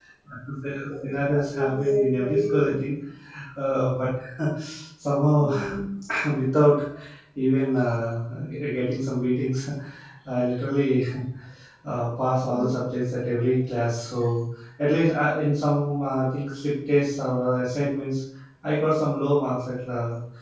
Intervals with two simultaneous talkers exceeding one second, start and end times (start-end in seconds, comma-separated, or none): 0.9-2.7